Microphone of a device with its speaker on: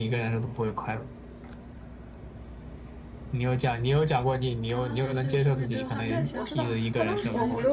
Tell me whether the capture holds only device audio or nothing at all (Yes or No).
No